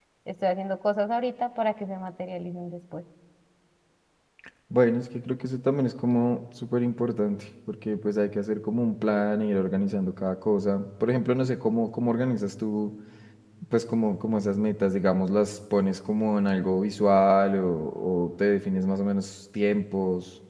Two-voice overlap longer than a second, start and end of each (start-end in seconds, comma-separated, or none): none